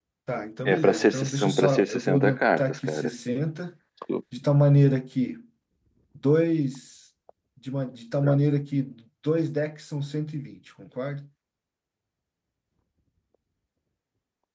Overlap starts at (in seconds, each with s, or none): 0.7 s